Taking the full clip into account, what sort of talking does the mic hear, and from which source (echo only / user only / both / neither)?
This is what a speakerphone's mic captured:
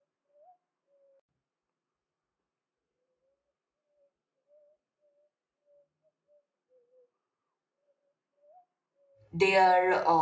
user only